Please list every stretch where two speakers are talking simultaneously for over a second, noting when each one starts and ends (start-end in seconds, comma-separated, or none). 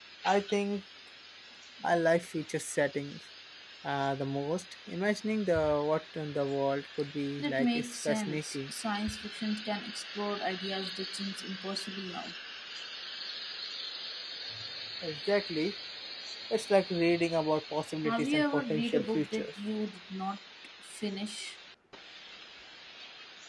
7.4-8.7, 18.0-19.5